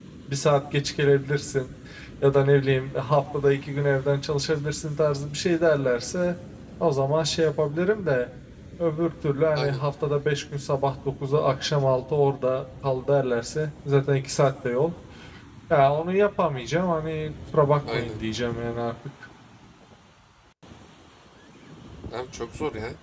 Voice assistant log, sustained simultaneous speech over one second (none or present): none